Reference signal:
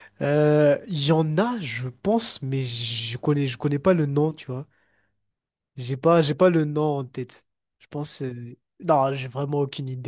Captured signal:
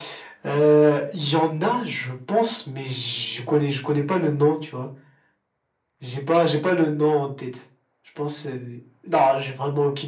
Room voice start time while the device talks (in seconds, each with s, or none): none